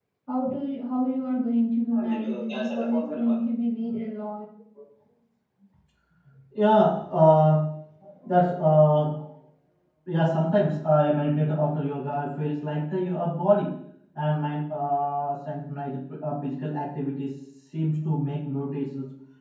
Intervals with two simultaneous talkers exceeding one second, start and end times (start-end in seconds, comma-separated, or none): 2.1-3.5